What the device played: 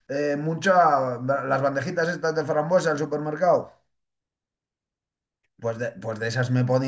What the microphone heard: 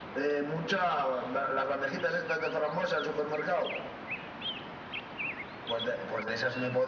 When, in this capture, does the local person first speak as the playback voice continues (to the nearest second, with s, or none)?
none